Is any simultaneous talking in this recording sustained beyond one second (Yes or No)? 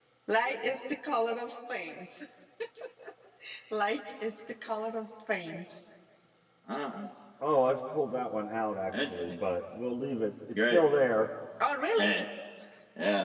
No